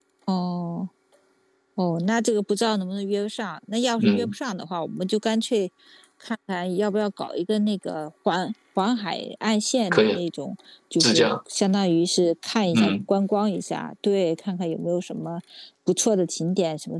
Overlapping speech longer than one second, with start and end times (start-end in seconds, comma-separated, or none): none